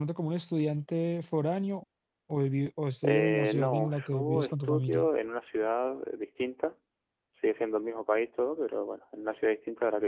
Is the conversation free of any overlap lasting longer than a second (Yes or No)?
No